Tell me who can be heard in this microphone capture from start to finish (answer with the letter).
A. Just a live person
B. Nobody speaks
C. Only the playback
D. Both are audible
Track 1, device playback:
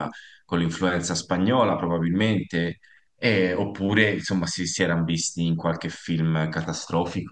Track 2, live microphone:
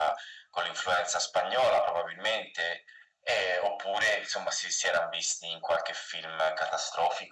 C